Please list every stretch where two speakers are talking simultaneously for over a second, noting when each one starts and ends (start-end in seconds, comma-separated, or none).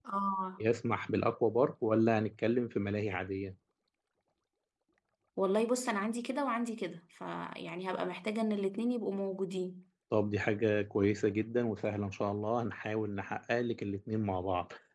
none